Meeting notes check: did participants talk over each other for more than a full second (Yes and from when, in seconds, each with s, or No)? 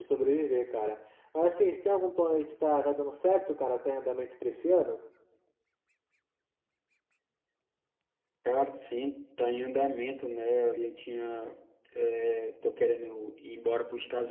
No